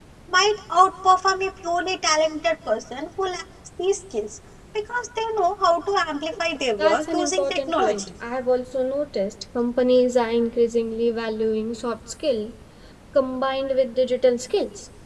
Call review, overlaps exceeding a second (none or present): present